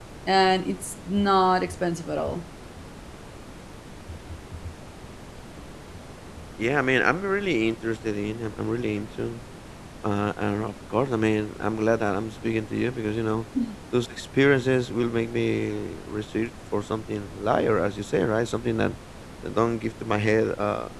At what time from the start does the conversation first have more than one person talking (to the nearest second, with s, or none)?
none